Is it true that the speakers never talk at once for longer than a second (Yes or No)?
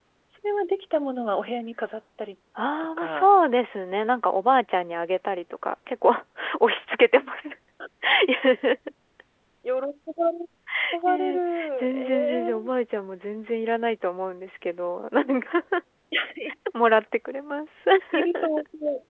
No